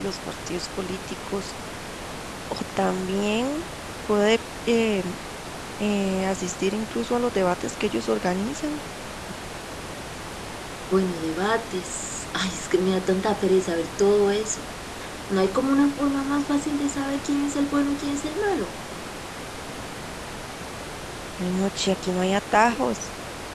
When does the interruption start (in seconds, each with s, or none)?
none